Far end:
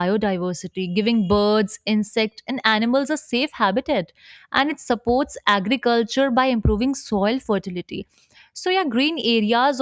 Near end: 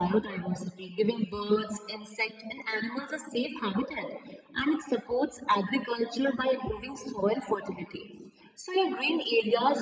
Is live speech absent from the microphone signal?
Yes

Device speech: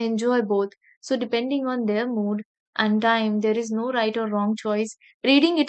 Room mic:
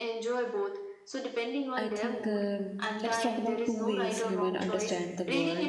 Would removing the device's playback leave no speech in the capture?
No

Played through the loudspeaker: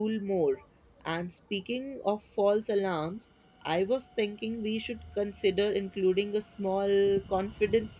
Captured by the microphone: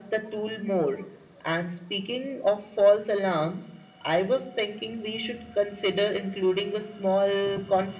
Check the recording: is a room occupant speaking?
No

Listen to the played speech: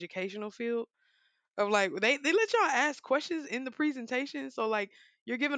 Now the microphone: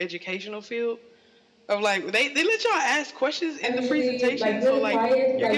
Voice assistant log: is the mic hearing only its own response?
No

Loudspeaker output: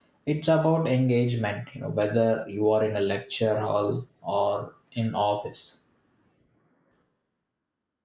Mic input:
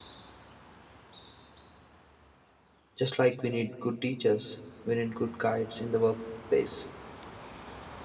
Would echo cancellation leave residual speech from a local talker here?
Yes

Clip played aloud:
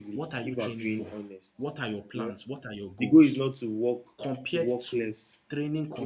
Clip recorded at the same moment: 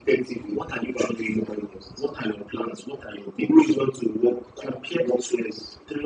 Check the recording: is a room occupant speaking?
No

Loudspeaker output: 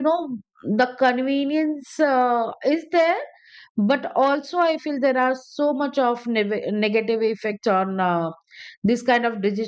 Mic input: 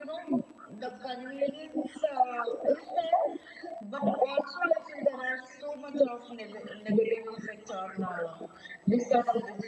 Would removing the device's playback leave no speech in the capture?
Yes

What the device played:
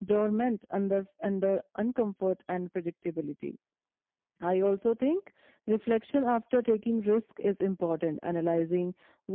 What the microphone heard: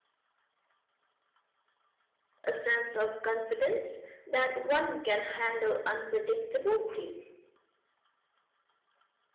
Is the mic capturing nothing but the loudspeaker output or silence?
No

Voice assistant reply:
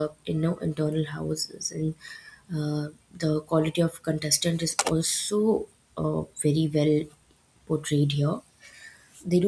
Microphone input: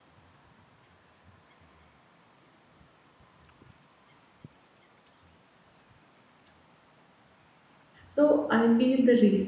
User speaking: Yes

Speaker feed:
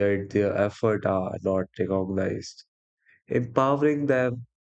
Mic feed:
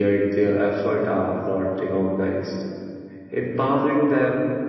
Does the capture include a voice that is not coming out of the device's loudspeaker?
No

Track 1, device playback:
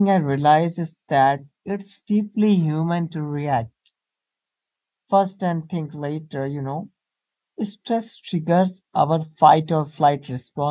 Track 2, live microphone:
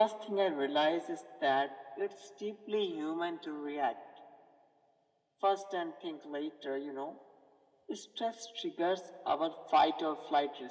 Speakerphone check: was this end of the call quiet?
Yes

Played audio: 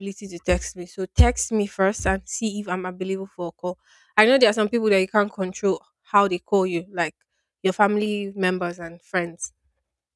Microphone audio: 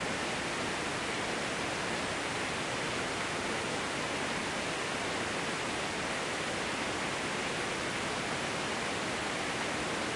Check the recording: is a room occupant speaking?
No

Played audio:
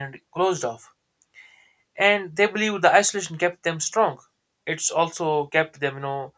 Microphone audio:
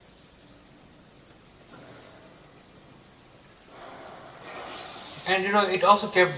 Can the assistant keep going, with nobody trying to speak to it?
No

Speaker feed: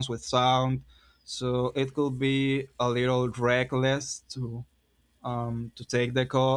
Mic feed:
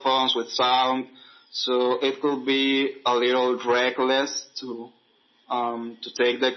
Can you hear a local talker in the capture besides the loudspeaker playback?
No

